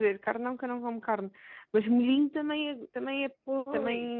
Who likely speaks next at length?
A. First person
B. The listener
B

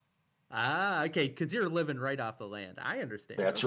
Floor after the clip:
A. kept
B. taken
B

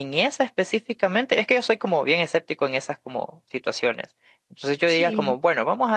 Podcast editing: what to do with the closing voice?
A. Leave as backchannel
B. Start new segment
A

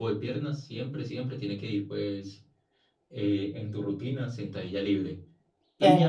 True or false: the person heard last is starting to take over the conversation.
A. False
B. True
A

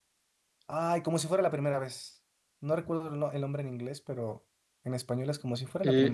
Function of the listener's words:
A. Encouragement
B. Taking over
B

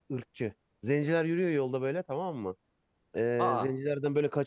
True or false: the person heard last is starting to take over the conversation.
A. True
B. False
B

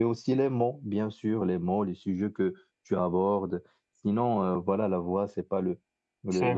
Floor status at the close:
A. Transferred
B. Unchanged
A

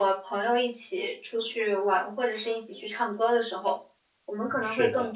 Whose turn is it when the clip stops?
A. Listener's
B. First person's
B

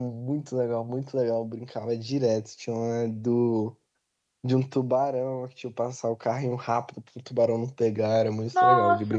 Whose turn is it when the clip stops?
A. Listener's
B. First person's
A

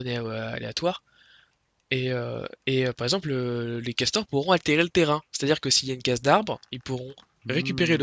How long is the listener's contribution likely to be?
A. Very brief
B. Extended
B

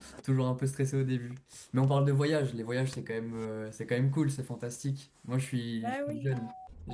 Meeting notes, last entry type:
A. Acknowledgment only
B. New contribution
A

